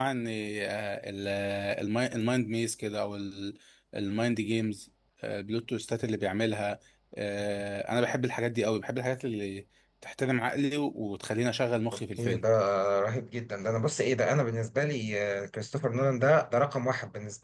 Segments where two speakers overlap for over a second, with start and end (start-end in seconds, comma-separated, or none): none